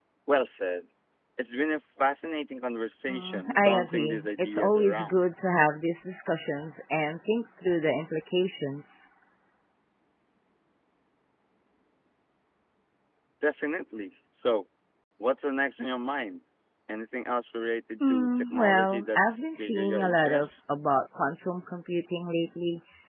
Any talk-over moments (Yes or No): Yes